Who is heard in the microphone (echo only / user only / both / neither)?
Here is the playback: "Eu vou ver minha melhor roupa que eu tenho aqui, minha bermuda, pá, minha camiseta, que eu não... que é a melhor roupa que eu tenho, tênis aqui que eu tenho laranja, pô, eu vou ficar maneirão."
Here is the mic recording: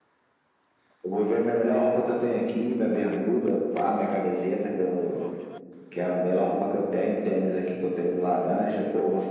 echo only